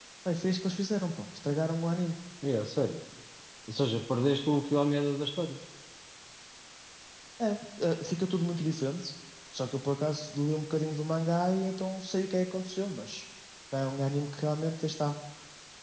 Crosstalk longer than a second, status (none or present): none